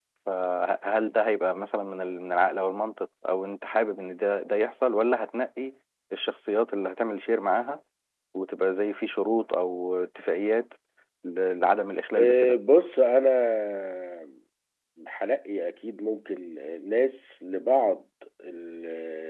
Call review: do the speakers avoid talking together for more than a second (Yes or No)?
Yes